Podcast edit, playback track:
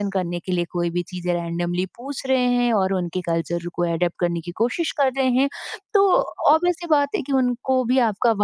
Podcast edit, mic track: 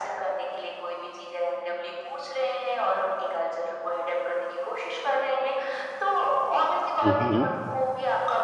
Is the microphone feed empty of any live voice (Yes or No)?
No